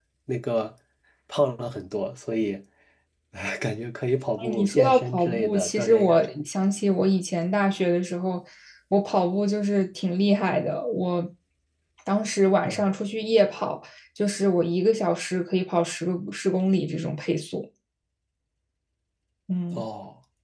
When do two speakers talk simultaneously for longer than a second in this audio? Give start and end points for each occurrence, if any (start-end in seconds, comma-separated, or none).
4.4-6.3